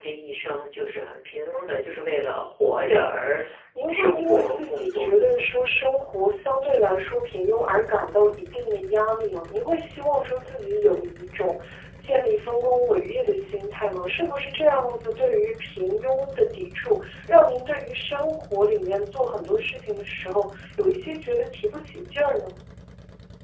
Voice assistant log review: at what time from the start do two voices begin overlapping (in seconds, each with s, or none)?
3.9 s